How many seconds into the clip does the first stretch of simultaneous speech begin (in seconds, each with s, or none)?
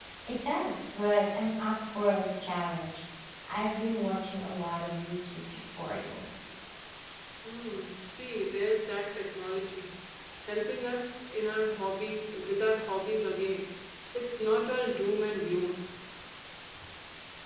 none